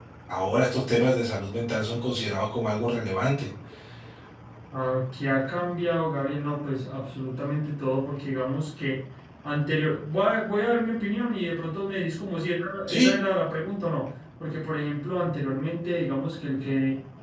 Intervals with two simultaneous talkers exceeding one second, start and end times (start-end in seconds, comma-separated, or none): none